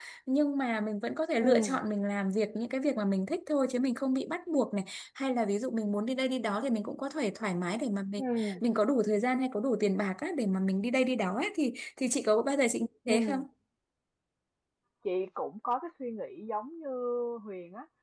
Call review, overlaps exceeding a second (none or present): none